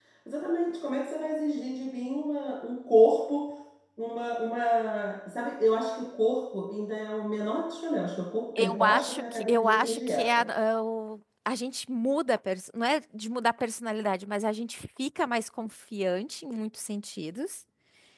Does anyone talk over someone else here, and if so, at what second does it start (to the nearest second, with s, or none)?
9 s